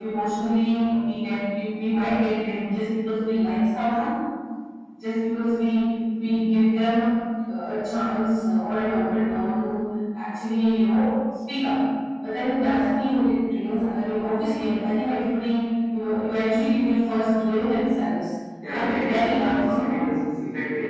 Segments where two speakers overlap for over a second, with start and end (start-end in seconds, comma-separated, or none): 18.7-20.2